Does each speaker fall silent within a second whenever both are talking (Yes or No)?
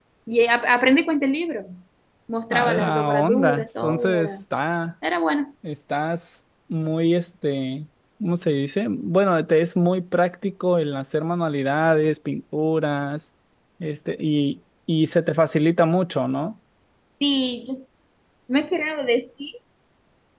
No